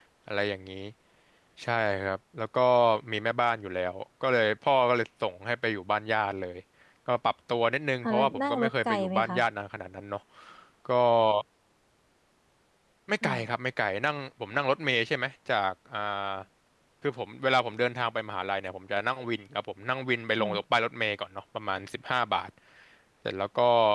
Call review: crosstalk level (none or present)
present